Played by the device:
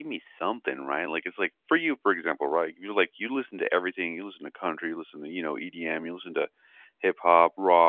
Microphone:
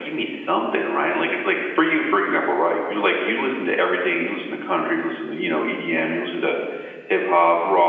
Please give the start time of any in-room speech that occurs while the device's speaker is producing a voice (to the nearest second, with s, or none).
none